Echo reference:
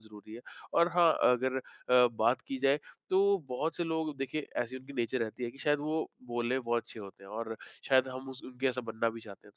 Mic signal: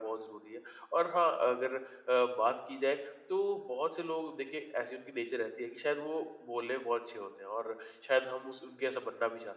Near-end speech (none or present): none